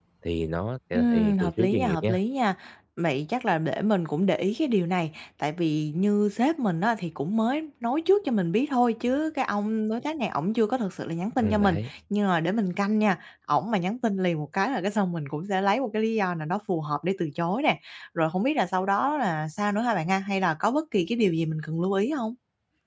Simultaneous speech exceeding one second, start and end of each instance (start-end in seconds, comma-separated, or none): 0.9-2.2